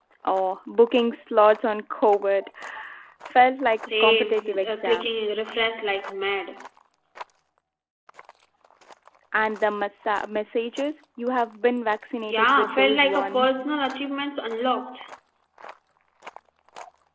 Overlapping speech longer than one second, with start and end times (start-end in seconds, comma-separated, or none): 3.9-5.1, 12.3-13.7